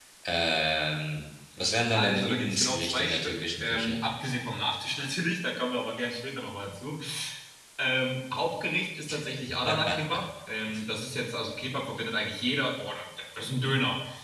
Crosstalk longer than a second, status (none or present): present